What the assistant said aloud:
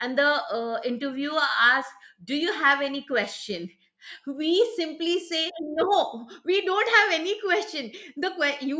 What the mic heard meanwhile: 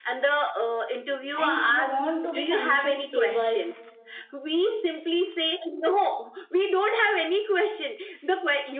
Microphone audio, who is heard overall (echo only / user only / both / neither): both